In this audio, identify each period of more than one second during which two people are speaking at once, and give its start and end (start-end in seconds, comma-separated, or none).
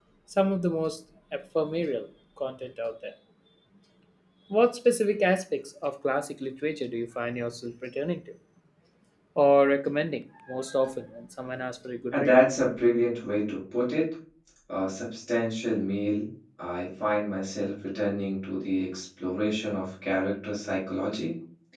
none